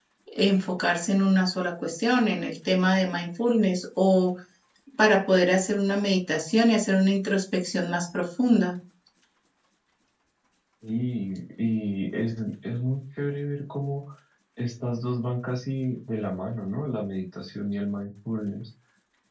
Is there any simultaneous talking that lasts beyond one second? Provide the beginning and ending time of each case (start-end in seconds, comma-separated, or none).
none